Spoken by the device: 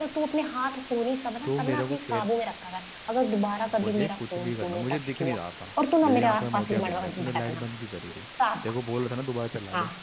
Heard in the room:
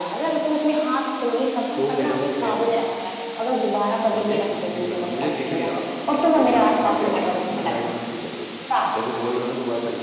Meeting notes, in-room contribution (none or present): none